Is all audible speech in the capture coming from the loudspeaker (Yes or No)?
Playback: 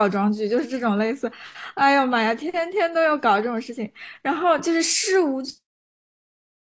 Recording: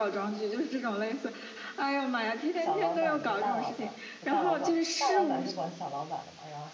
No